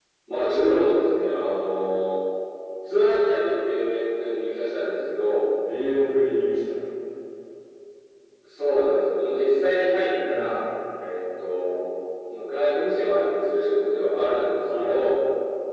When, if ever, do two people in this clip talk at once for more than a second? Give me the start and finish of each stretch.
none

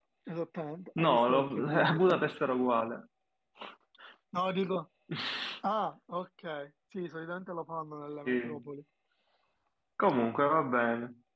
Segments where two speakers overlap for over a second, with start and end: 1.0-2.2

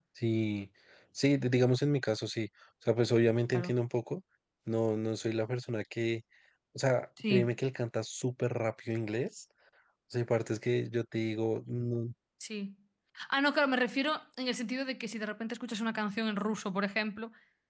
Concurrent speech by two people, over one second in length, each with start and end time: none

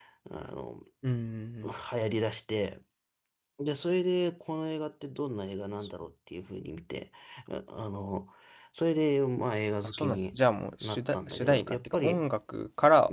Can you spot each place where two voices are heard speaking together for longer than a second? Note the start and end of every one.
10.8-12.2

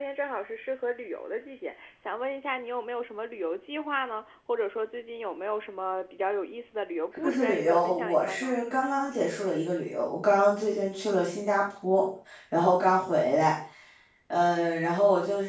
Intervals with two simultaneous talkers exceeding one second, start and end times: 7.1-8.6

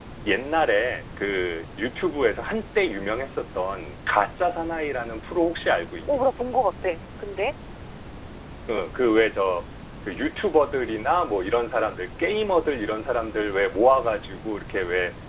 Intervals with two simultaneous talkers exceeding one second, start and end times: none

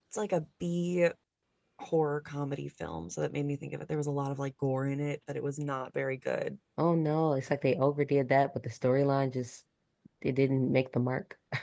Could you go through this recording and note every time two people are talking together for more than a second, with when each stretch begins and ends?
none

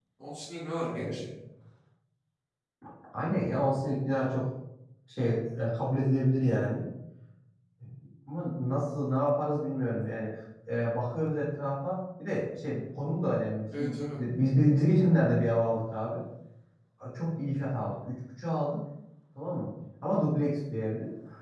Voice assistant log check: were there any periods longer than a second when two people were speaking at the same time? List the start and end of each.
none

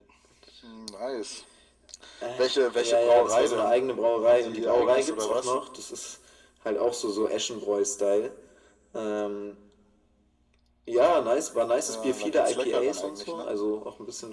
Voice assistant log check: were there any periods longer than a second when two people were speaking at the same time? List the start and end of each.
2.4-3.8, 4.2-5.6, 11.9-13.5

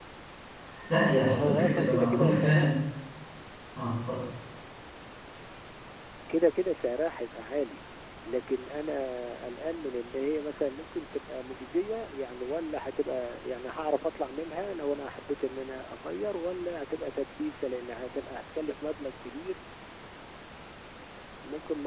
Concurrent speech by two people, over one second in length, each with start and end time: 1.1-2.6

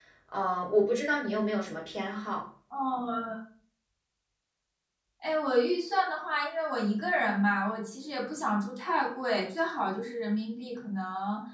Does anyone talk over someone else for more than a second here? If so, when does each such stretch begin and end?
none

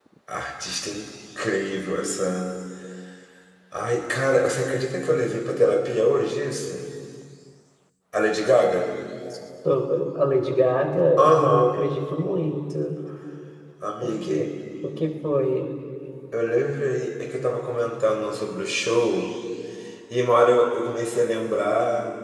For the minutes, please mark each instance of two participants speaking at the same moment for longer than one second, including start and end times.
none

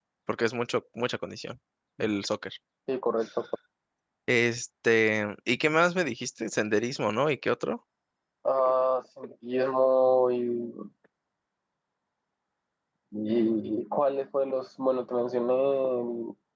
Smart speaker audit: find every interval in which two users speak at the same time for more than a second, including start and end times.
none

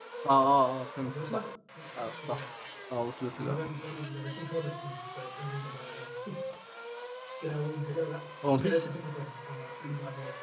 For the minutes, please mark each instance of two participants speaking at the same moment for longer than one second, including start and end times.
none

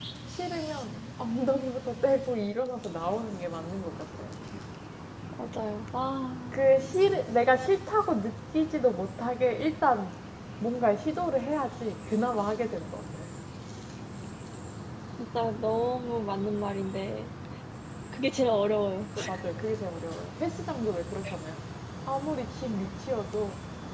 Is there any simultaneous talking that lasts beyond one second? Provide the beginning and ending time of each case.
none

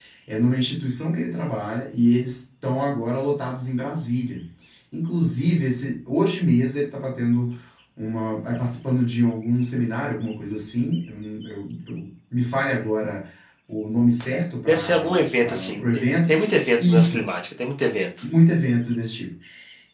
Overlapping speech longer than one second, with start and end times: 14.7-16.3

